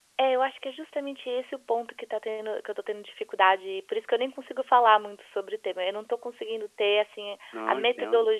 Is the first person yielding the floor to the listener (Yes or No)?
No